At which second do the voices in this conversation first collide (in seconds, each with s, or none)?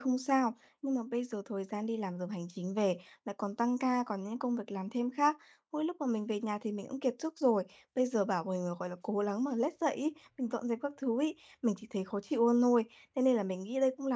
none